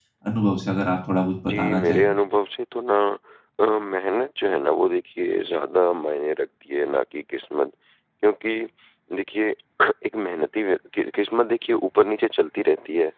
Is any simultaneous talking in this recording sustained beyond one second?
No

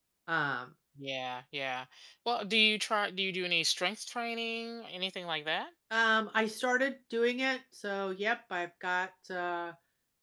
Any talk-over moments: No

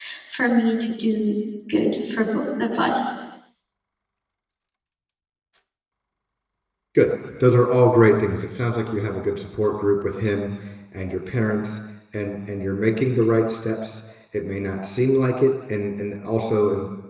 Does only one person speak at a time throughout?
Yes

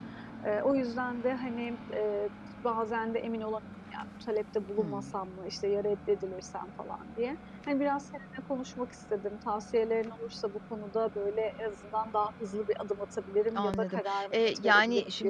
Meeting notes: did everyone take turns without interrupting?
No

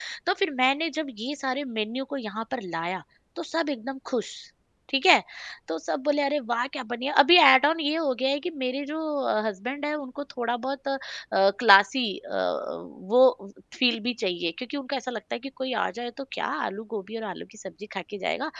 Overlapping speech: No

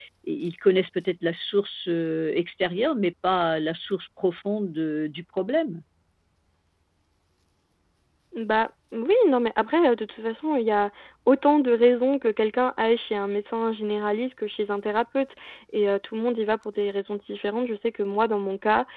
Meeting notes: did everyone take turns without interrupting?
Yes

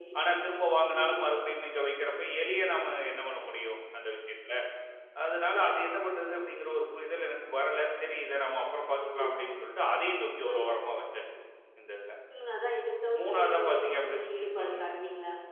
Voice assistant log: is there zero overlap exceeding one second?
No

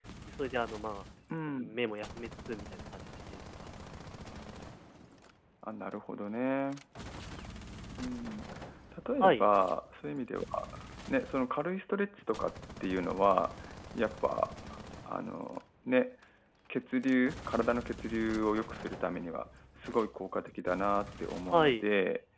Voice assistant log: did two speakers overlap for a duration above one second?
No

